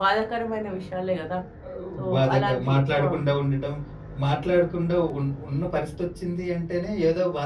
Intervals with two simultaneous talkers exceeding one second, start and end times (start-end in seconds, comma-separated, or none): 2.0-3.2